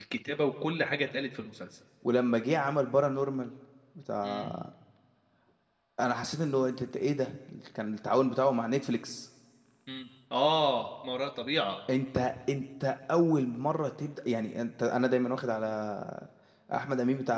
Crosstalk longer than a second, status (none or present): none